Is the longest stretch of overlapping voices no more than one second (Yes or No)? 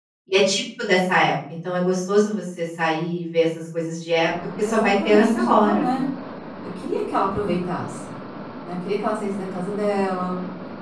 No